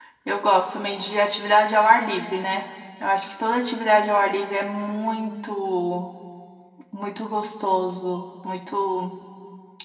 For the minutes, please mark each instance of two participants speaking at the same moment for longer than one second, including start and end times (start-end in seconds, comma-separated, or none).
none